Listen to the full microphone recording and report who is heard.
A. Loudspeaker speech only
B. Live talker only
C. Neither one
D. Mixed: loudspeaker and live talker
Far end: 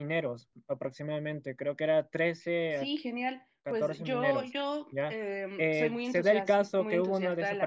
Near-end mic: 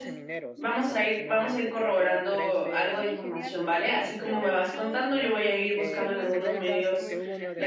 D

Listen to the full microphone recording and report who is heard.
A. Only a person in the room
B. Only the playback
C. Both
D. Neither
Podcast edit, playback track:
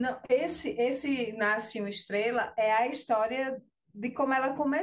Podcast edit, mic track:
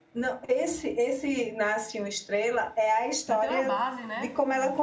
C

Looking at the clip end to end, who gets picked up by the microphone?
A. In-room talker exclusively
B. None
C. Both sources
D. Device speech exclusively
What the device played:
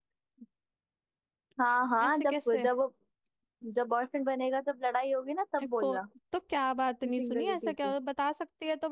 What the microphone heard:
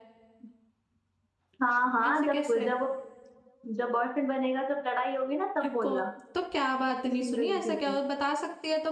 D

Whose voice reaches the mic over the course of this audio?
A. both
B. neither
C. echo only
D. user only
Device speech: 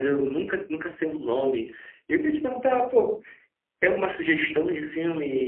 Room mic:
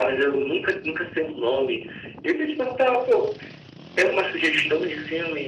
C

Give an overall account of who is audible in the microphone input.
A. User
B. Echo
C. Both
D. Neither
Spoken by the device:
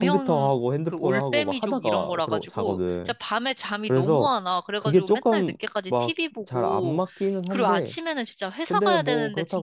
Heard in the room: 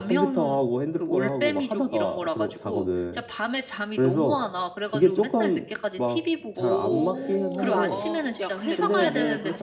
C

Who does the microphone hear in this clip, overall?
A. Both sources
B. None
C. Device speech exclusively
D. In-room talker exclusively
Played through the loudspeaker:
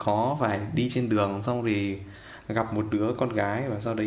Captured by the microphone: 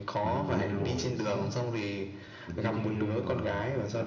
A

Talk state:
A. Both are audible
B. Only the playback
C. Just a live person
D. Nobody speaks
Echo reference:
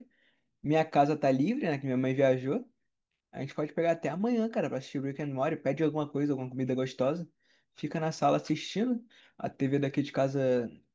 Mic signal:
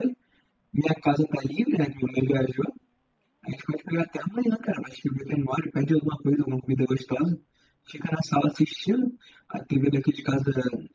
B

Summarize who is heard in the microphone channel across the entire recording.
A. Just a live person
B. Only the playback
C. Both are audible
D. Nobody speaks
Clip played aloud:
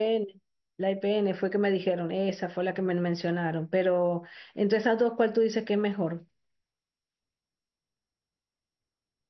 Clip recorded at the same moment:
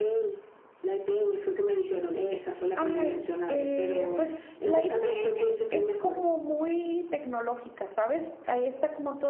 C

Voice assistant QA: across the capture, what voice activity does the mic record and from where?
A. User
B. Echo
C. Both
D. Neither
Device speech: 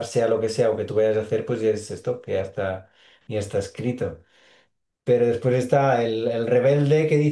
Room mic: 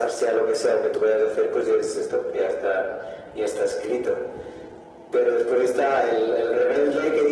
B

